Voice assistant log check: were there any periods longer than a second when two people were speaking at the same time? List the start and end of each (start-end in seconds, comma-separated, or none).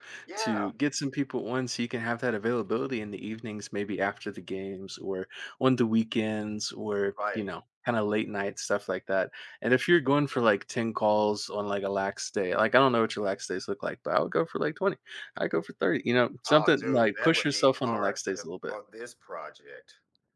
16.5-18.8